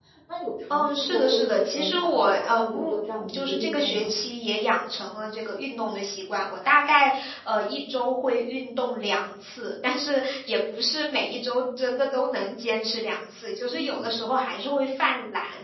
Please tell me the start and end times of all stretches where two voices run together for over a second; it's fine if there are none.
0.7-4.1

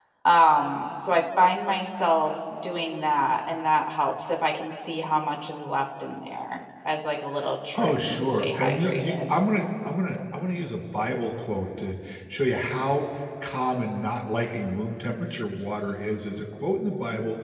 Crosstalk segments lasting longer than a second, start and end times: 7.8-9.3

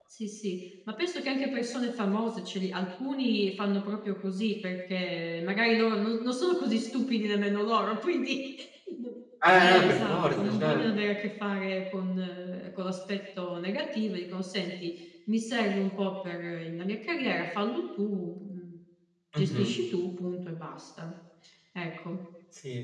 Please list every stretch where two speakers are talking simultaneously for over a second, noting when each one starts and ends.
9.6-10.8

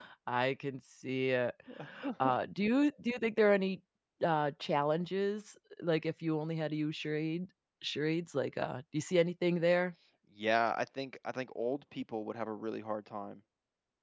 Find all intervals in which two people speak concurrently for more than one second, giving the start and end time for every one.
none

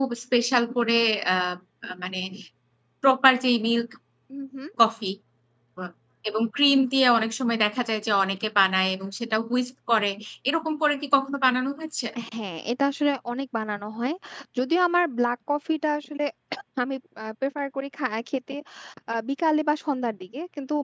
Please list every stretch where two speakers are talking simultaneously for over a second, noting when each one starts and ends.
none

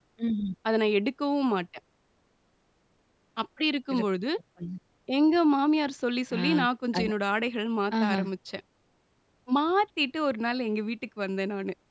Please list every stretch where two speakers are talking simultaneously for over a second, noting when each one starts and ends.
none

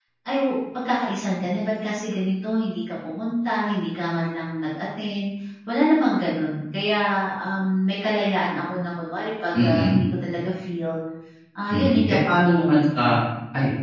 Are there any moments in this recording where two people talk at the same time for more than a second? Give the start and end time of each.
11.7-13.2

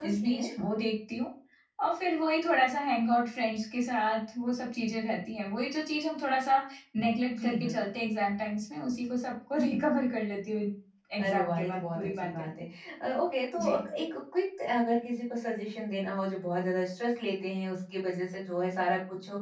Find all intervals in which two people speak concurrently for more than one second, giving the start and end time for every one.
11.2-12.5

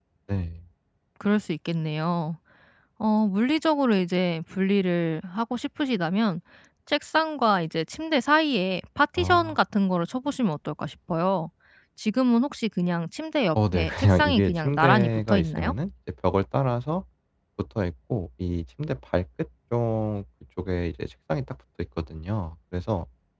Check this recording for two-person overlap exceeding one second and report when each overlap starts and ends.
13.6-15.7

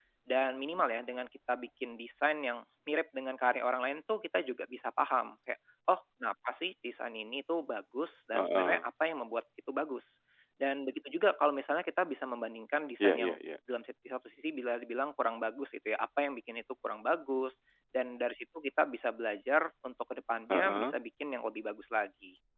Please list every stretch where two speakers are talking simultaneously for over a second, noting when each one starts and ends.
none

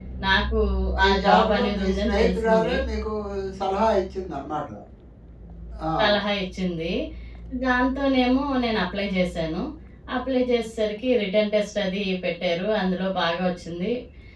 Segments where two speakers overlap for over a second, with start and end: 1.1-2.7

